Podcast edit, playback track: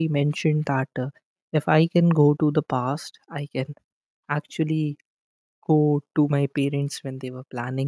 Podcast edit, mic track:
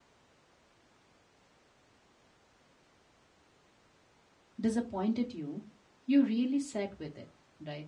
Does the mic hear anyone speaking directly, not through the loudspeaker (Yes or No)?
Yes